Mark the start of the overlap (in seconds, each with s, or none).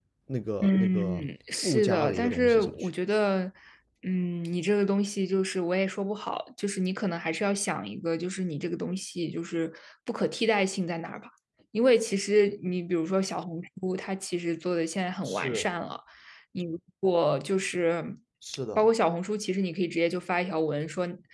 0.6 s